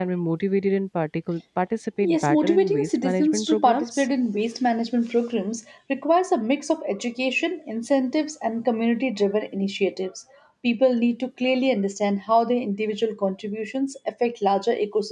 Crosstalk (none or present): present